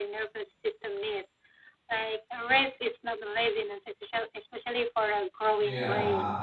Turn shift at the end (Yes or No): Yes